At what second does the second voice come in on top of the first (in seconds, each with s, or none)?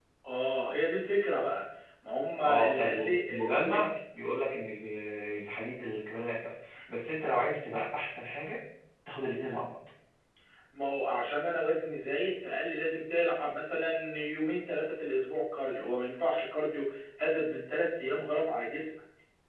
2.4 s